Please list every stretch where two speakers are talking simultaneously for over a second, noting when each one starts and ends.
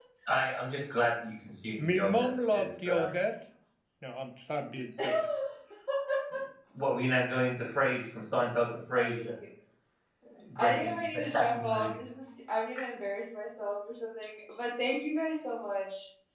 1.8-3.1, 10.6-11.9

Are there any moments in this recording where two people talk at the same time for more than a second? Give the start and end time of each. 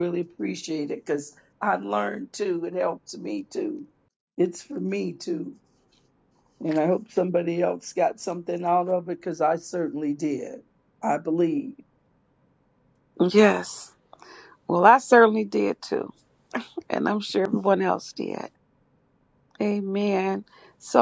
none

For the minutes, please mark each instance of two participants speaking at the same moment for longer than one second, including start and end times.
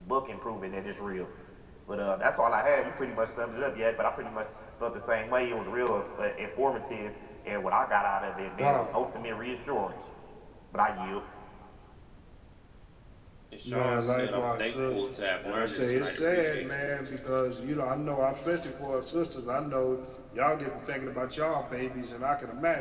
13.6-15.0, 15.4-16.6

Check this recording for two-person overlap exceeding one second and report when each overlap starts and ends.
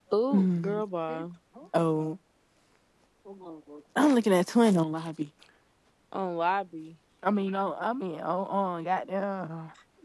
none

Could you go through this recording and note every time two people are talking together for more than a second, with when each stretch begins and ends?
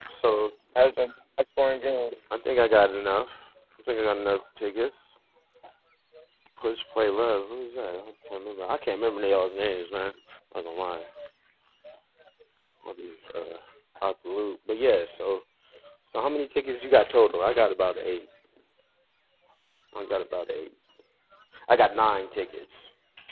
none

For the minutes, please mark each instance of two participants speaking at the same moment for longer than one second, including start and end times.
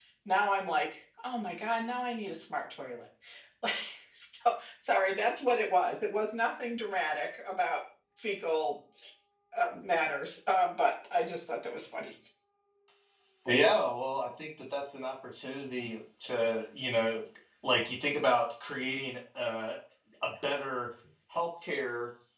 none

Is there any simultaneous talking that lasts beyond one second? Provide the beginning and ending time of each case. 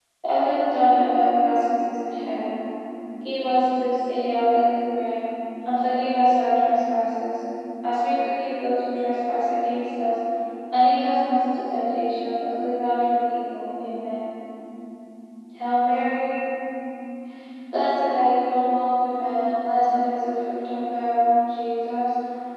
none

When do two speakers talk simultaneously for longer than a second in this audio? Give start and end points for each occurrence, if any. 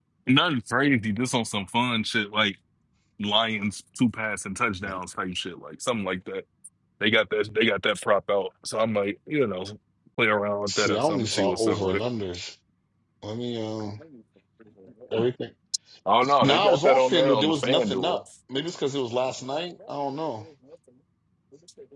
10.7-12.0, 16.4-18.2

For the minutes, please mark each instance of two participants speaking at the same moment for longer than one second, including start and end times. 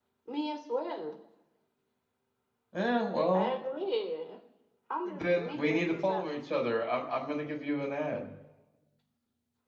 5.0-6.3

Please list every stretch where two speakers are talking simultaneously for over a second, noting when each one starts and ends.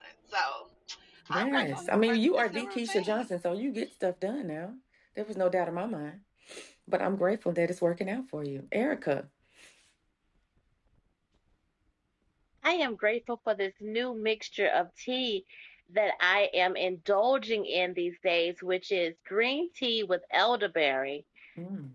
1.3-3.2

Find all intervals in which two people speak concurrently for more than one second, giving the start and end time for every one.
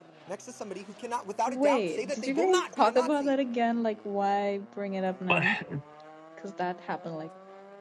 1.5-3.4

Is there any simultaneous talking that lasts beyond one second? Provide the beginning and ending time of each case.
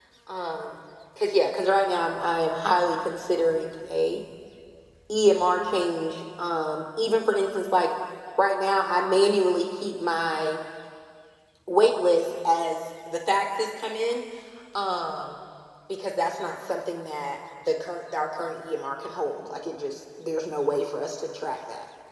none

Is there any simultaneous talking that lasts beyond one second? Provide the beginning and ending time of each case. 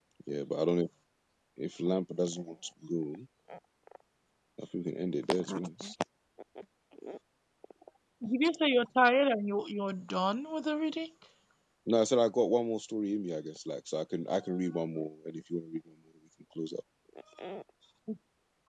none

